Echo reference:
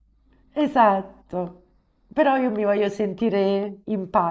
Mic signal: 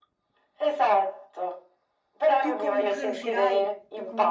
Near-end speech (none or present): present